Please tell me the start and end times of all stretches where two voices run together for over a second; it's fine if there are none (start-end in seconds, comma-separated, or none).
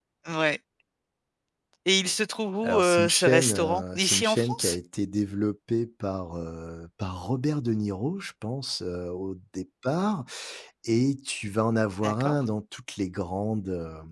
2.6-4.8